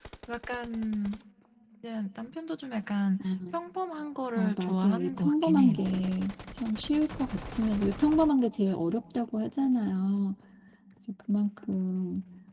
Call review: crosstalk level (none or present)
present